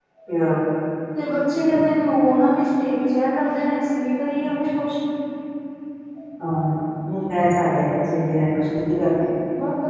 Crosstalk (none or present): none